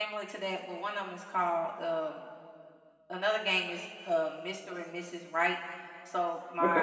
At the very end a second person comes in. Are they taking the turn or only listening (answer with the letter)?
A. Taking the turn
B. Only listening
B